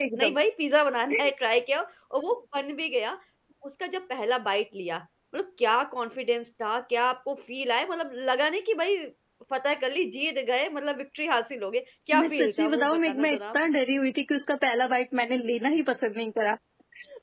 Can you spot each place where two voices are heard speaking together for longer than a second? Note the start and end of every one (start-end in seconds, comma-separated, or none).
12.2-13.6